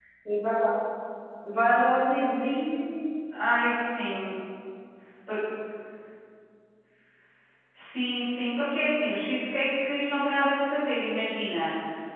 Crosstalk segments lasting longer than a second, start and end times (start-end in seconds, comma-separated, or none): none